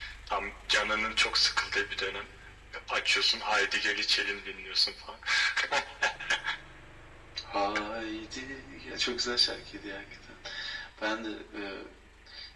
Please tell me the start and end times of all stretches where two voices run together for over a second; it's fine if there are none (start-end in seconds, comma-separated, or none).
none